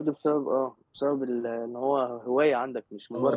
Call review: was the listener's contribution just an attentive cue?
No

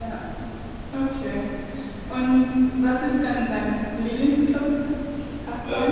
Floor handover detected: Yes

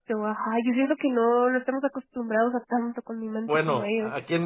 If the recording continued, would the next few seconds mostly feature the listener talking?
Yes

